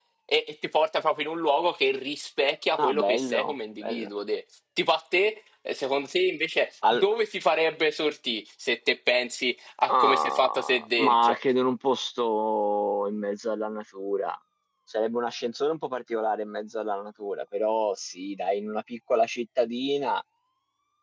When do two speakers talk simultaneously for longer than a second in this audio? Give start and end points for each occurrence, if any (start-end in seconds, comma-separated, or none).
2.8-4.1, 9.9-11.4